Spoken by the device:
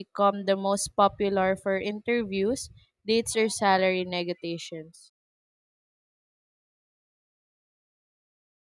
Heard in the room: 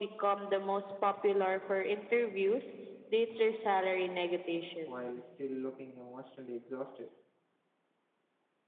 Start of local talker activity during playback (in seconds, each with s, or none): 4.8 s